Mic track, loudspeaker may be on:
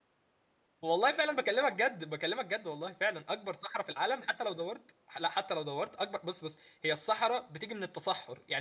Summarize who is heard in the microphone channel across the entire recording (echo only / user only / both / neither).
user only